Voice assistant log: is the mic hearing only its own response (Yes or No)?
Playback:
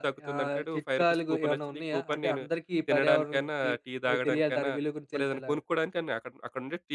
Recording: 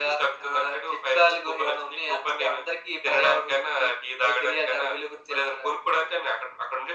Yes